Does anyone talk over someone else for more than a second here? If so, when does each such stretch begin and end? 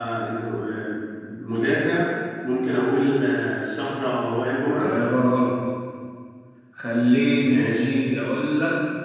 none

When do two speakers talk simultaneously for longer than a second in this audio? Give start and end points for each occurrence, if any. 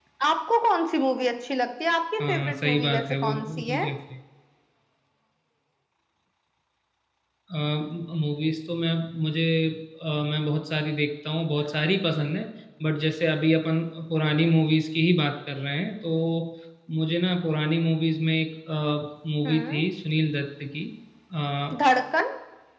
2.2-3.8

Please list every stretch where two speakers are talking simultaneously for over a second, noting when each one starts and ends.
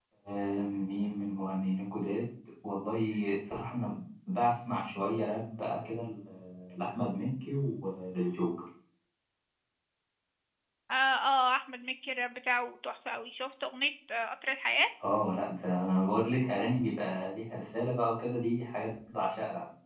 none

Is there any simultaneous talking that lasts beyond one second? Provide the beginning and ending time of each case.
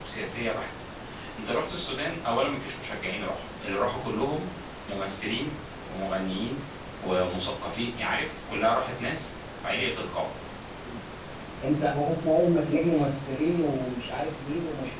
none

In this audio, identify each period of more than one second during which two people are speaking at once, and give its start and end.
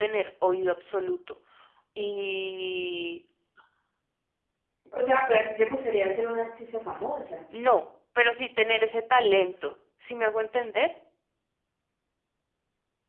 none

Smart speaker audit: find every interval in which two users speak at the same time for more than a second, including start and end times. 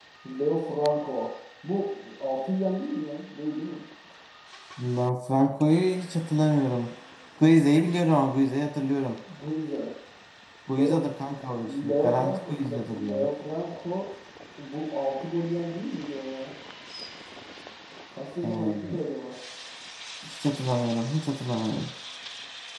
11.7-13.3

